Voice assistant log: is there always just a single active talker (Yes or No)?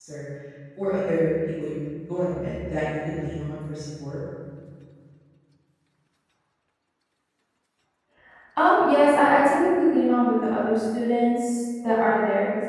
Yes